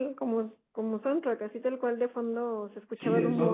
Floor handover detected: Yes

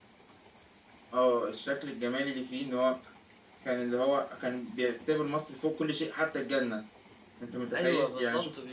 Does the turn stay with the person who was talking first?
No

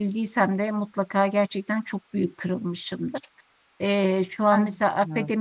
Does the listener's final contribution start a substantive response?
No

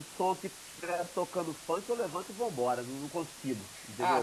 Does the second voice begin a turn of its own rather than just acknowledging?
Yes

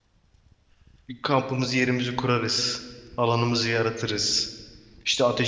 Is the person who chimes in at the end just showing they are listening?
Yes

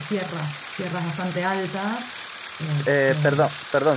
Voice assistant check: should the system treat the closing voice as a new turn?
Yes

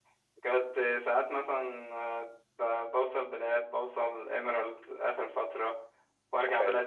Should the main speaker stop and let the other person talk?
No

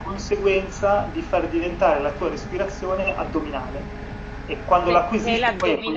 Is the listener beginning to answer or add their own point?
Yes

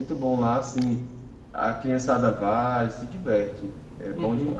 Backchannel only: No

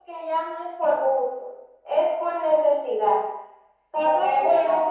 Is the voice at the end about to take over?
Yes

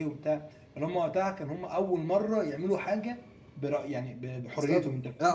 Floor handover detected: Yes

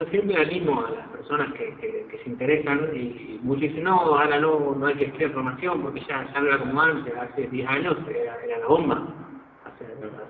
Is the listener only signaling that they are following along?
No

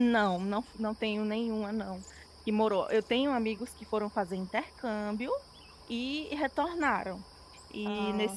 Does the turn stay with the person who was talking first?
Yes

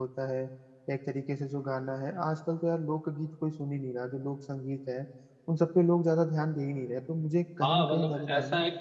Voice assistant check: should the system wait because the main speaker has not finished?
No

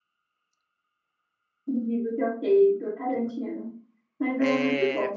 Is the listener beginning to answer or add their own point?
Yes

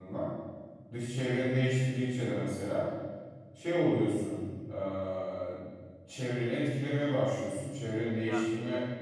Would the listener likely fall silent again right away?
Yes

